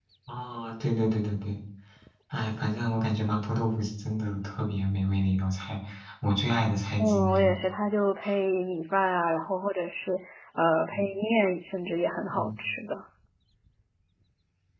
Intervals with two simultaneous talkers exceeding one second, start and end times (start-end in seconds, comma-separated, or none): none